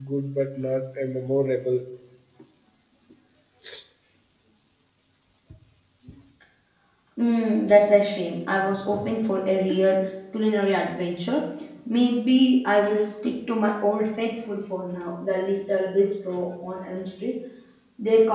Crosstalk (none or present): none